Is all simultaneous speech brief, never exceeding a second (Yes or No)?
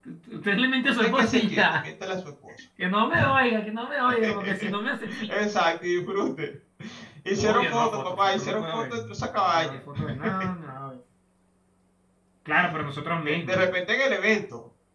No